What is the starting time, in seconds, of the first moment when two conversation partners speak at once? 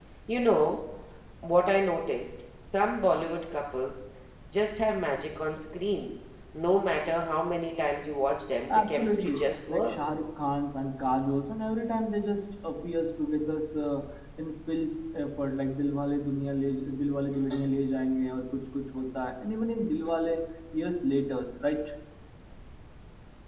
8.7 s

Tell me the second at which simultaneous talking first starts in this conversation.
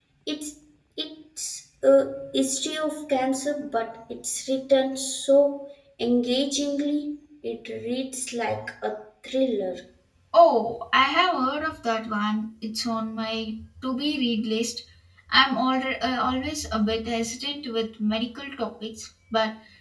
none

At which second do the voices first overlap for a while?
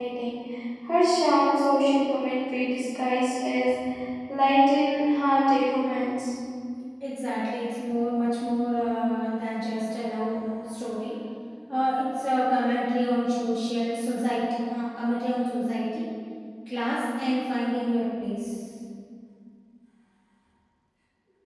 none

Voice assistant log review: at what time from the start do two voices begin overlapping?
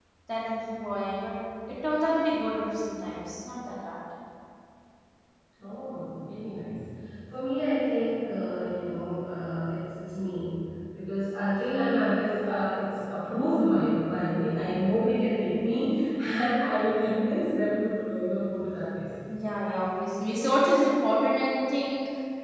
none

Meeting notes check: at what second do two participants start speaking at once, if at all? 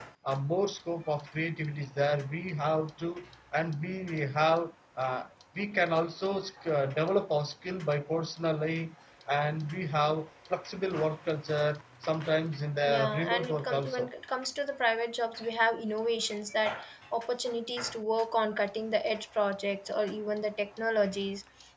12.8 s

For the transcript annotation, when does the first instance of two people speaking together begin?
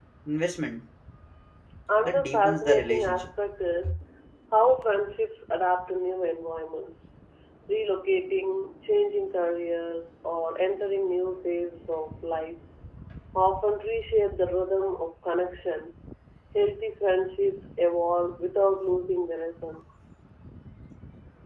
2.0 s

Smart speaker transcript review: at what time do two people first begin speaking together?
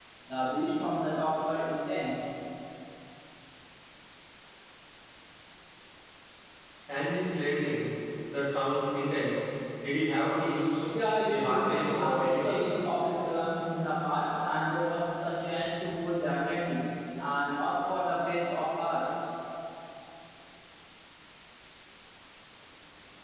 11.3 s

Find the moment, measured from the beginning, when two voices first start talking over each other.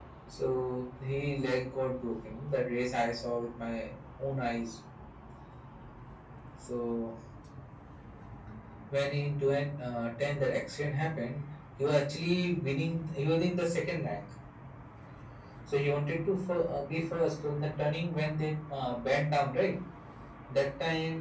none

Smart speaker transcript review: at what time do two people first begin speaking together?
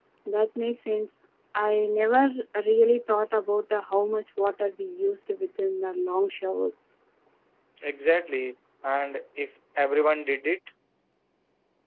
none

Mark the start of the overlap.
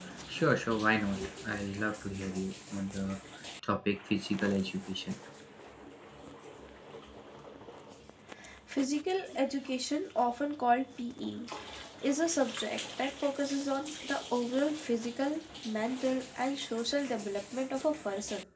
none

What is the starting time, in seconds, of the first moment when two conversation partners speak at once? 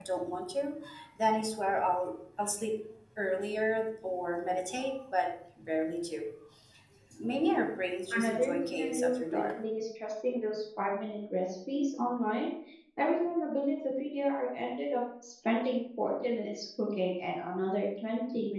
8.1 s

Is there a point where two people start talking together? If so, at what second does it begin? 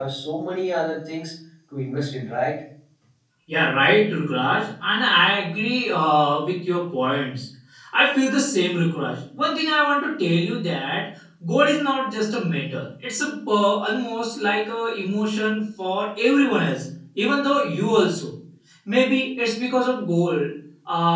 none

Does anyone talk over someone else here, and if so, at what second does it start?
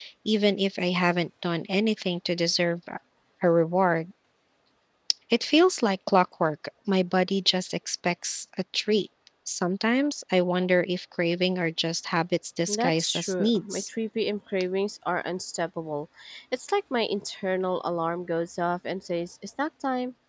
12.7 s

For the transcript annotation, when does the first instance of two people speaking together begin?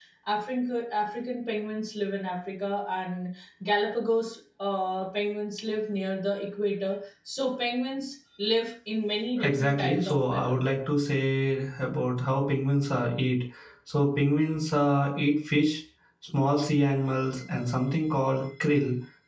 9.4 s

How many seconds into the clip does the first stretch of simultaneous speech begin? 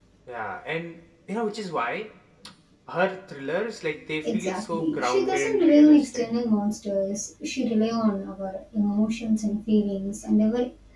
4.2 s

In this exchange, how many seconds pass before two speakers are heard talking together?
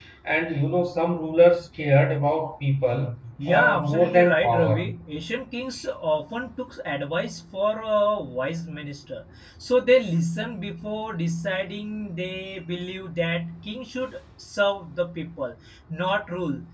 3.4 s

